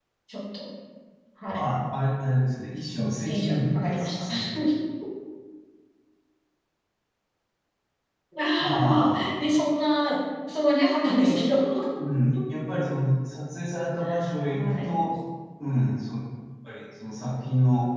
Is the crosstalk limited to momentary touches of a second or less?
No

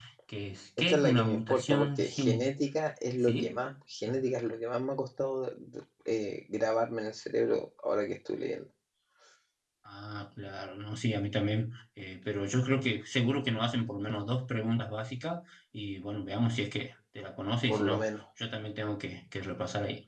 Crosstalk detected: Yes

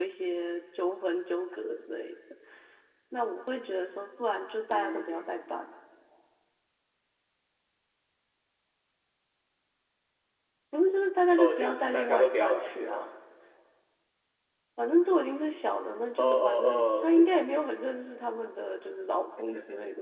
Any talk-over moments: Yes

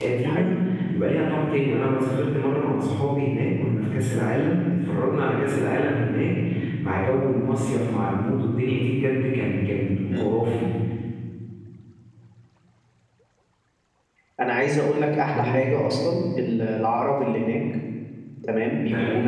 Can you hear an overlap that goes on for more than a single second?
No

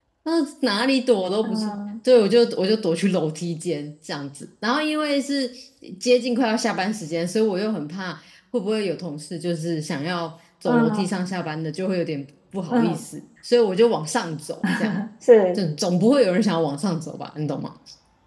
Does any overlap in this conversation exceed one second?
No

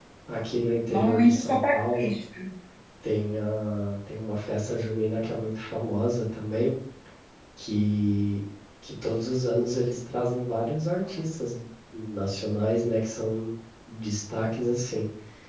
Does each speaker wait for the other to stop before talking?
No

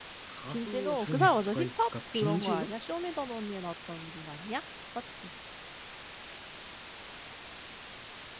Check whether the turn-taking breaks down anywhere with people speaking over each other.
Yes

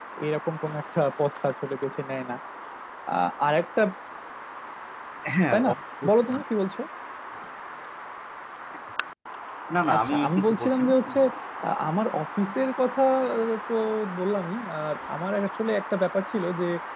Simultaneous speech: Yes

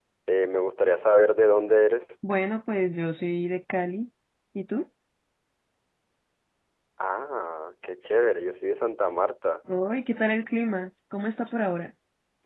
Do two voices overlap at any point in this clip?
No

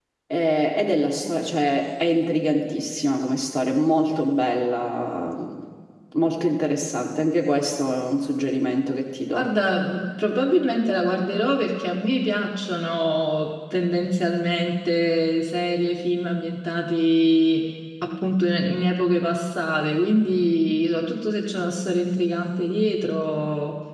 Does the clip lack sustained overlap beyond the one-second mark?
Yes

